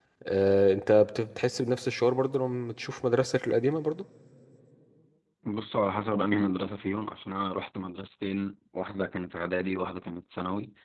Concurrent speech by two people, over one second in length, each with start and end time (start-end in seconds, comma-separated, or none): none